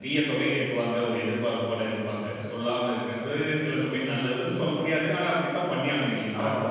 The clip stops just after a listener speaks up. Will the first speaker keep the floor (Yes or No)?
No